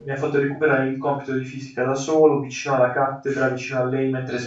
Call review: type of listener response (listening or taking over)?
listening